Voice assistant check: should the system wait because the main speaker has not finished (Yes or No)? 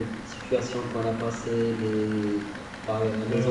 No